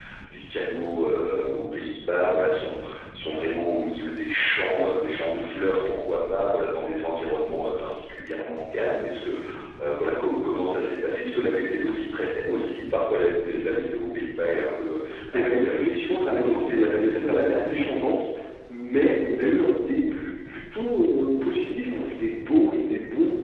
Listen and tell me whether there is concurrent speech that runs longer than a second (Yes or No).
Yes